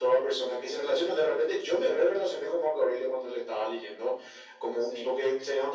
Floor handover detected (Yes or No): No